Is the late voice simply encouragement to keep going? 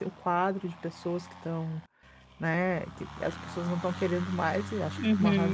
No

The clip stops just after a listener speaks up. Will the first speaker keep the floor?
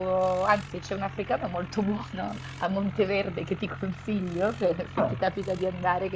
Yes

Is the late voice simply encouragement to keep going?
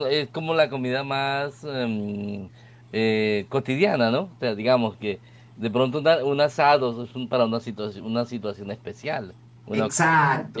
Yes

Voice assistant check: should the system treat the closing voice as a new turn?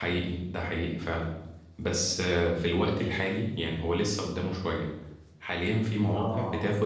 No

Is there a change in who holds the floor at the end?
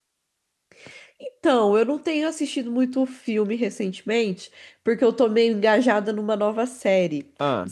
No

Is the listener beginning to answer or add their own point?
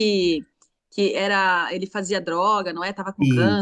Yes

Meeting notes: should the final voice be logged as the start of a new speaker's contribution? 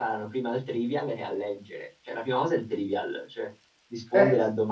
No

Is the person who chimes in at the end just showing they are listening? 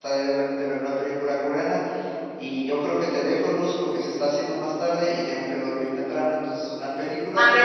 No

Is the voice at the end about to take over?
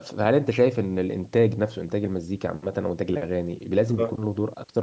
No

